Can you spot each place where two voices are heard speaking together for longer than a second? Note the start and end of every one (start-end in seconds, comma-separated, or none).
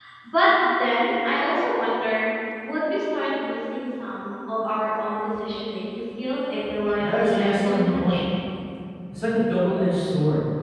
7.0-8.2